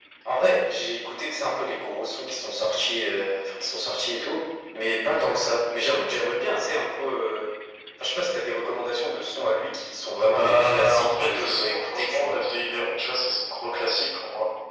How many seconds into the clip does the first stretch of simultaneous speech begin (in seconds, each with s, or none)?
10.2 s